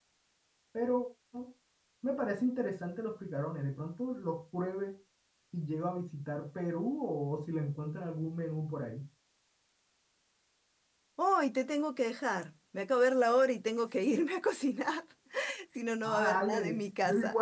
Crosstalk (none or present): present